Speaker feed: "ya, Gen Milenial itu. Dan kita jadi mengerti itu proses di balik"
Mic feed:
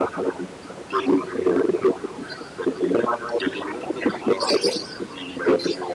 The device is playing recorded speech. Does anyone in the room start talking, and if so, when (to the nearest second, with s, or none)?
none